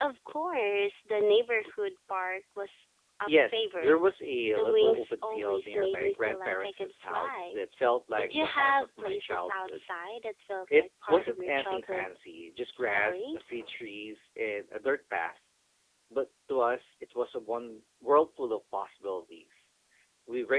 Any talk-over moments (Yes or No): Yes